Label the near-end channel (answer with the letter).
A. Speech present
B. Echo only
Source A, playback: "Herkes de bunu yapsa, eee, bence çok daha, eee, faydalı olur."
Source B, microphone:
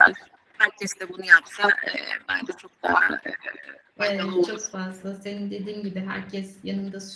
A